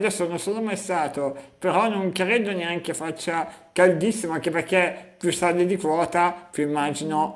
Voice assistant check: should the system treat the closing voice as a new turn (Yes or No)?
No